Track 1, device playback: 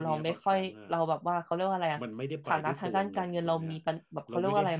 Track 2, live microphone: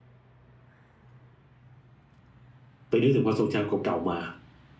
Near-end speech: present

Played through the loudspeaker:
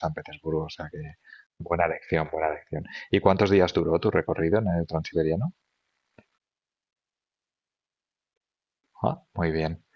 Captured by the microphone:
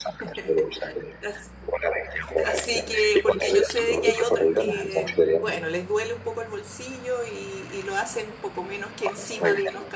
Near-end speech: present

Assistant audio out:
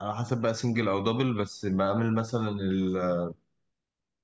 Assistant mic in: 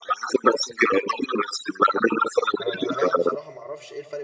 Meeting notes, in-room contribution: present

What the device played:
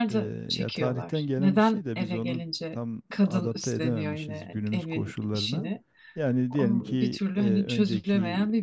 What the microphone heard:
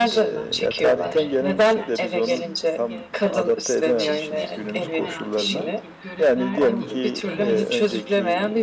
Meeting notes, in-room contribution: present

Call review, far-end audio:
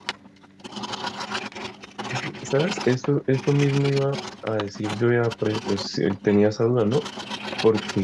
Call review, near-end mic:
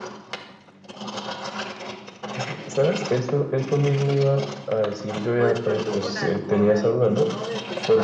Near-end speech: present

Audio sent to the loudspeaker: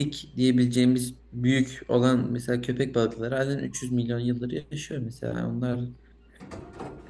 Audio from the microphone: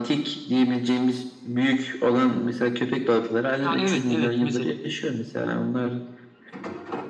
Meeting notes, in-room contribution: present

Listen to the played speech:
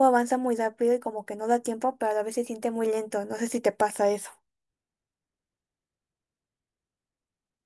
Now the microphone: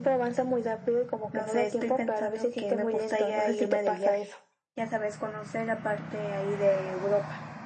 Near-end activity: present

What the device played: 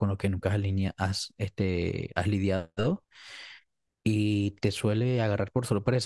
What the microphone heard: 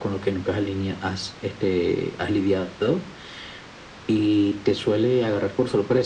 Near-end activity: none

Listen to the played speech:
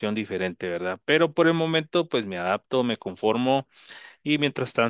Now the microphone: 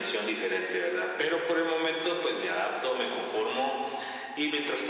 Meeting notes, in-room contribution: none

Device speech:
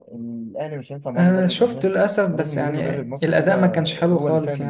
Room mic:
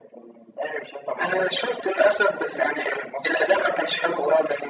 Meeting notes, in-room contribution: none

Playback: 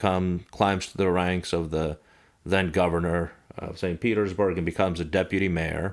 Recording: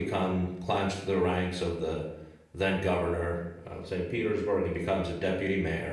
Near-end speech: none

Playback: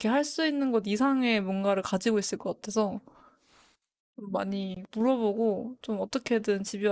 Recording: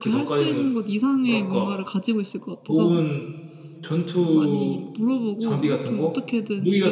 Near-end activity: present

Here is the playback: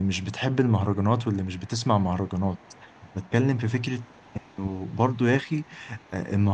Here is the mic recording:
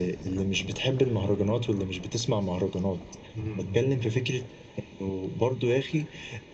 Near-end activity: present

